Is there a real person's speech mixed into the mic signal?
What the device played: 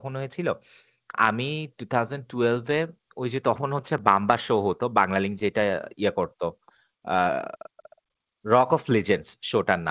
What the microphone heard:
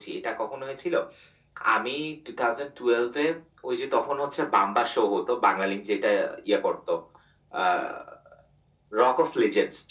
No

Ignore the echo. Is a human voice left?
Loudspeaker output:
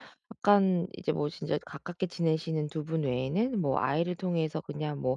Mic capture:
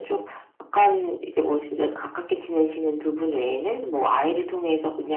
No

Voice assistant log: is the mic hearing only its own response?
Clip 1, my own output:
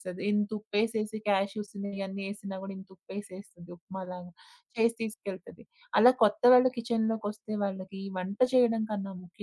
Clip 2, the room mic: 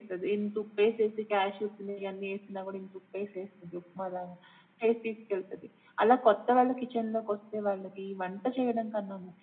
Yes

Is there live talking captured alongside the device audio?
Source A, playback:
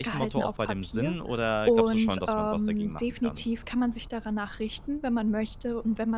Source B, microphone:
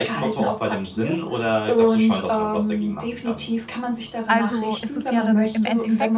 Yes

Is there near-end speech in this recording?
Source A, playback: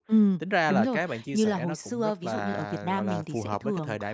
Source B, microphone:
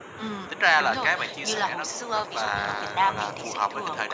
No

